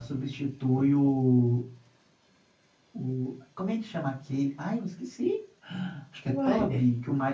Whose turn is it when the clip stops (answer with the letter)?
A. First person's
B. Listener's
A